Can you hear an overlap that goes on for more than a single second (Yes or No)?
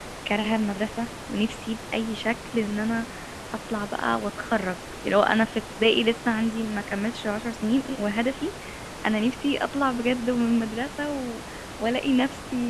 No